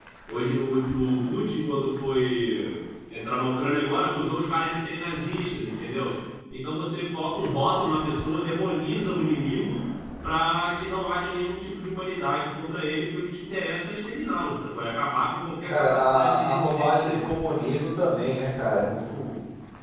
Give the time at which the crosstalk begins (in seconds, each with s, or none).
15.7 s